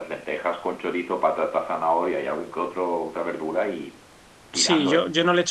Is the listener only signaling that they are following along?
No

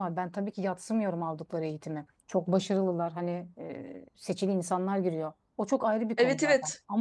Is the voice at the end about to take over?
No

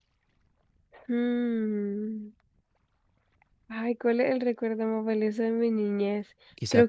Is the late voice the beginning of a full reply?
Yes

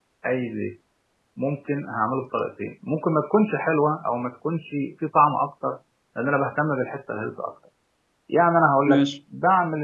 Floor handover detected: No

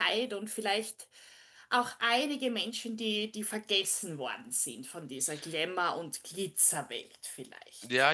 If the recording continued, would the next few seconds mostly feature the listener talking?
Yes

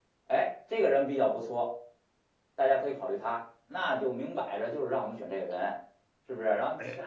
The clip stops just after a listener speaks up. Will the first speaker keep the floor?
Yes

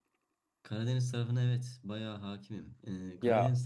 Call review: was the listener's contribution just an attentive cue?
Yes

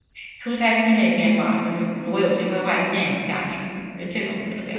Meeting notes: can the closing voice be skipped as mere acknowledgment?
No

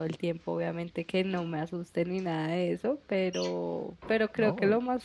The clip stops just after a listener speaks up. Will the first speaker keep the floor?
Yes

